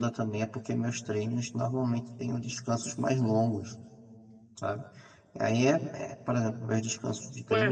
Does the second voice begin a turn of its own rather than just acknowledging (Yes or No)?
Yes